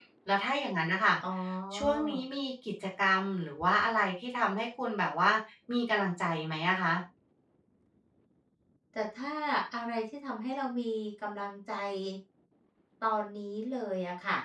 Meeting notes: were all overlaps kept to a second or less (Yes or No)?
Yes